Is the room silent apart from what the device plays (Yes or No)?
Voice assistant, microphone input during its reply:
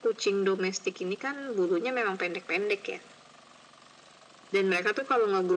Yes